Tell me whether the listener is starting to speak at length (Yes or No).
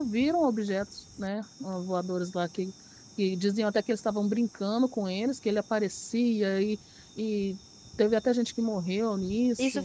Yes